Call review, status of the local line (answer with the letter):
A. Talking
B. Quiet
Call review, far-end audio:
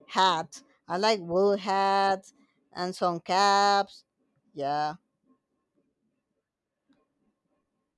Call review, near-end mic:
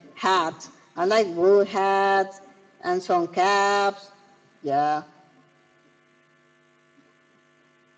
B